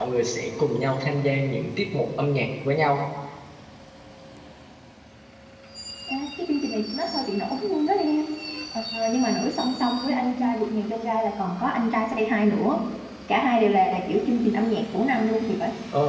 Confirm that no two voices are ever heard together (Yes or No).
Yes